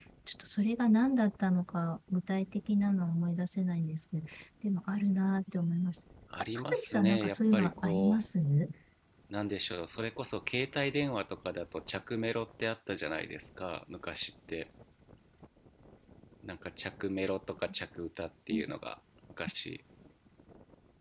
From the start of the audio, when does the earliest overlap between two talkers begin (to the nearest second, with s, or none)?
6 s